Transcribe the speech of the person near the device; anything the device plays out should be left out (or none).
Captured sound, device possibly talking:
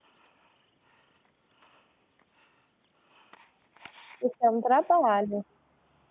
Isso é um trabalho.